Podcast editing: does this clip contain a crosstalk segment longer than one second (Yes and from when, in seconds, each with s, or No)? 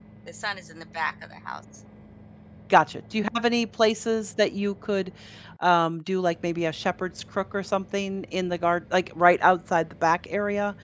No